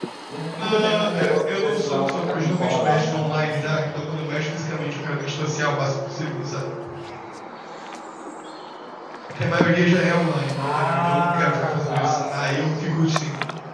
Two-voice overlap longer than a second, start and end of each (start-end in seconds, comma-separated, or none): 0.6-3.8, 10.6-12.9